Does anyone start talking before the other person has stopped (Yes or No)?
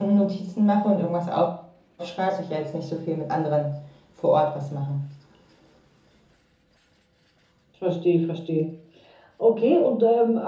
No